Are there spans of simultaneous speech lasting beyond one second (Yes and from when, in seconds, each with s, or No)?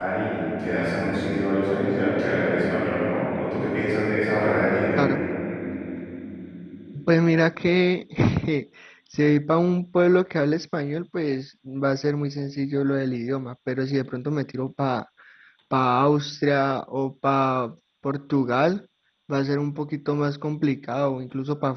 No